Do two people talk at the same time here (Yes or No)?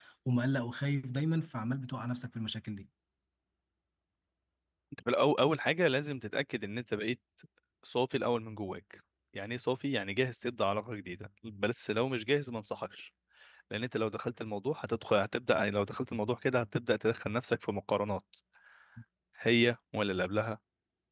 No